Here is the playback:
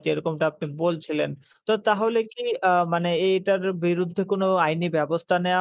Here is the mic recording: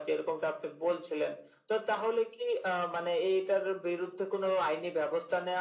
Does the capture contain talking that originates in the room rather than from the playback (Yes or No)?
No